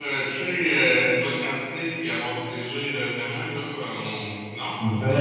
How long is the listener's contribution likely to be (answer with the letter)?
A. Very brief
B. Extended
A